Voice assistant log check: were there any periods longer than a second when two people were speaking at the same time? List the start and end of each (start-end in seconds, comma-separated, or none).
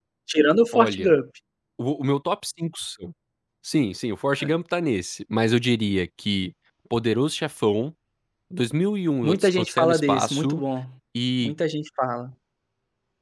9.2-10.6